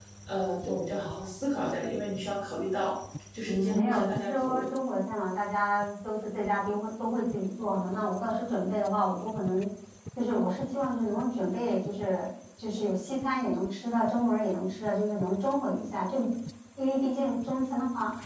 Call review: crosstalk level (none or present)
present